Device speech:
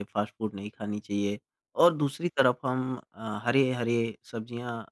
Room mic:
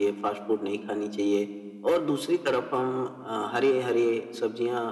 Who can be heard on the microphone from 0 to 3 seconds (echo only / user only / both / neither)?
echo only